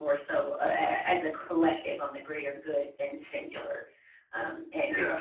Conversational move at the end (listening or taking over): listening